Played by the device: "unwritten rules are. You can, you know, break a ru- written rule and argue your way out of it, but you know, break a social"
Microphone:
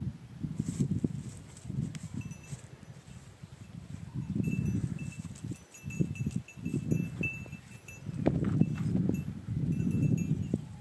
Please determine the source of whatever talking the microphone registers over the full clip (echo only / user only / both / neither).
neither